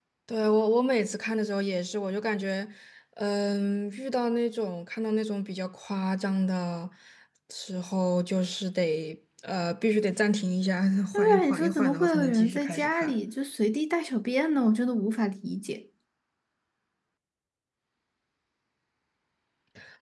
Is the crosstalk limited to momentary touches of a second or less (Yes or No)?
No